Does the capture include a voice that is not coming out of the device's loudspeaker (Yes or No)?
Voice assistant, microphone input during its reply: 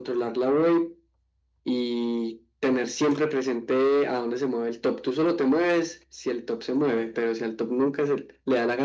No